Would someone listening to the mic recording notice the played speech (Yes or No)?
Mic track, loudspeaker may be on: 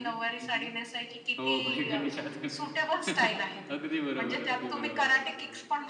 Yes